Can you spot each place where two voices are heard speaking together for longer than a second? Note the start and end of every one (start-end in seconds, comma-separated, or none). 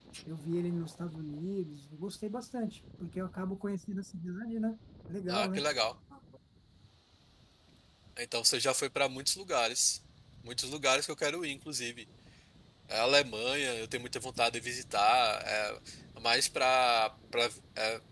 none